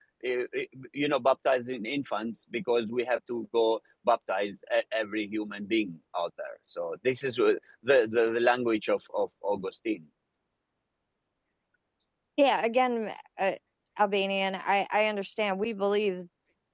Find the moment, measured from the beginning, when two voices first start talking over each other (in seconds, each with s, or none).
none